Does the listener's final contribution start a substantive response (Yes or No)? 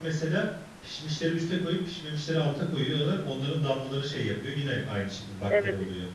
Yes